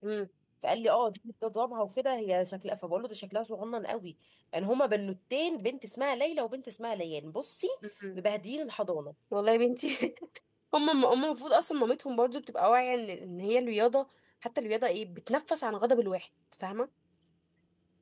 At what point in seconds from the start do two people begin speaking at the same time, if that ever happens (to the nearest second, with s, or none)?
none